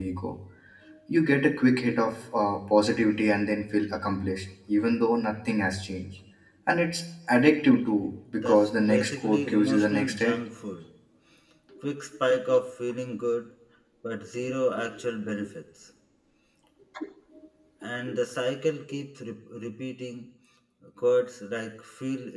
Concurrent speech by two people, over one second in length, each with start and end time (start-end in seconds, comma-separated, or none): 8.4-10.4